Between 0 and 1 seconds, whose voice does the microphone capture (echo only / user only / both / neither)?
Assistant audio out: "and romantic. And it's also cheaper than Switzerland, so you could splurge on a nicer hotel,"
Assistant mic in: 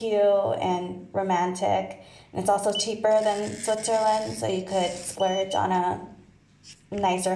echo only